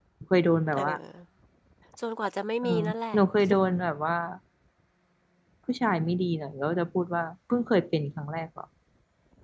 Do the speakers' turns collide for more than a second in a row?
No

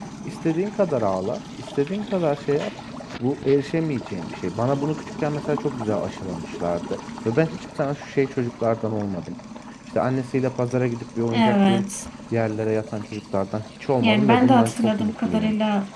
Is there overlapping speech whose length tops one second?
Yes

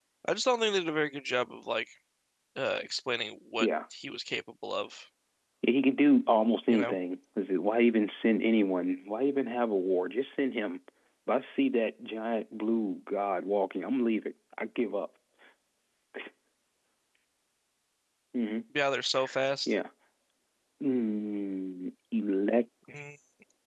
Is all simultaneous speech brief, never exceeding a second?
Yes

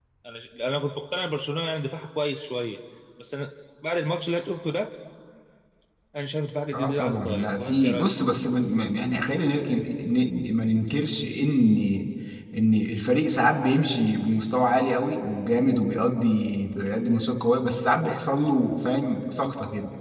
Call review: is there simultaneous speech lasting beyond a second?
Yes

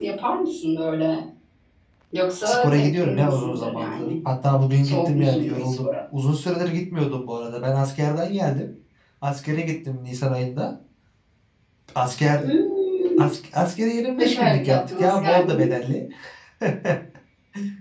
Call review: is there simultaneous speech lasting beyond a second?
Yes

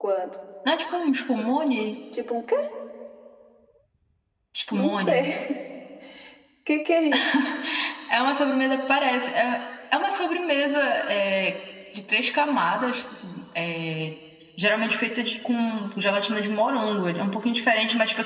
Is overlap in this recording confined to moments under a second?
Yes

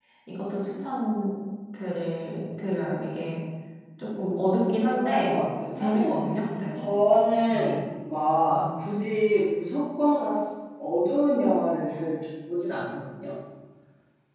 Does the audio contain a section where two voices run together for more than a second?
Yes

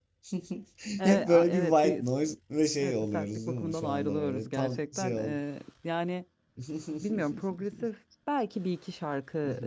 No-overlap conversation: No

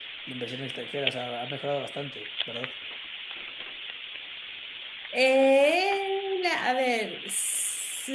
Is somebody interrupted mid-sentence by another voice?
No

